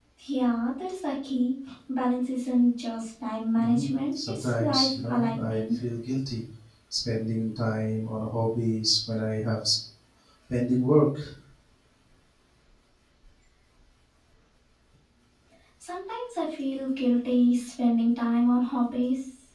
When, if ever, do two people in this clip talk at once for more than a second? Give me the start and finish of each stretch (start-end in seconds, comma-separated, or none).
3.6-5.8